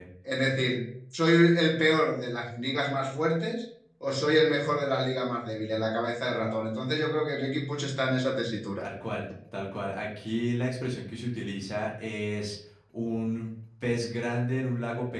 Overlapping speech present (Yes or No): No